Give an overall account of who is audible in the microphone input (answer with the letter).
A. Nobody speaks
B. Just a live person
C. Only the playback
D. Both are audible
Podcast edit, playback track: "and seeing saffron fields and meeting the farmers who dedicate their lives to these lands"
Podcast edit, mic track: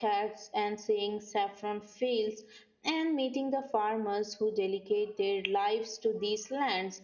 C